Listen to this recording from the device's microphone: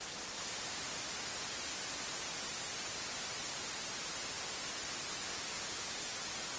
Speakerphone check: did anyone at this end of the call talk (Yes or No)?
No